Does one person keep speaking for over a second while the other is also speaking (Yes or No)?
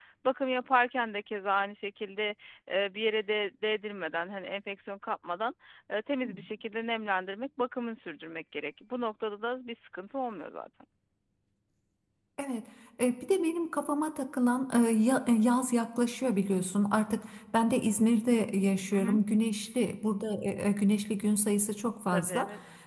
No